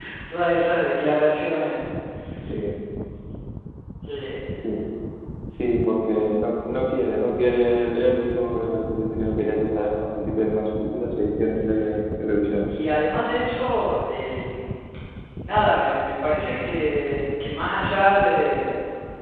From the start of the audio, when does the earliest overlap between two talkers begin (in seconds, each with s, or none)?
none